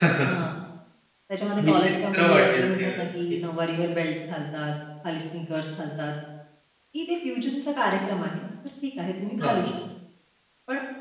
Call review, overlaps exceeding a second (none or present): present